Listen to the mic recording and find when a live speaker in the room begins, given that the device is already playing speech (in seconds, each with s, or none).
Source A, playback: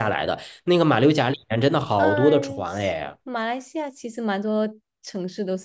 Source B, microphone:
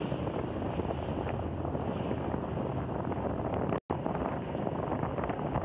none